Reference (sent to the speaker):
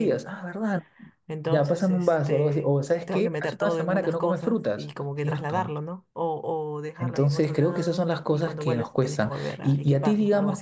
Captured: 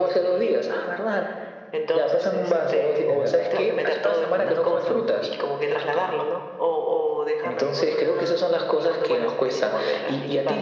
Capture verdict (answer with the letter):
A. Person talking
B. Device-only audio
A